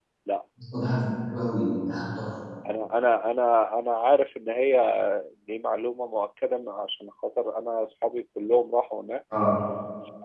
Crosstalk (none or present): none